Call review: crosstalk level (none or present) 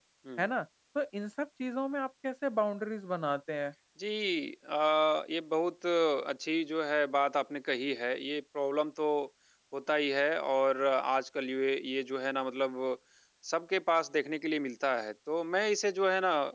none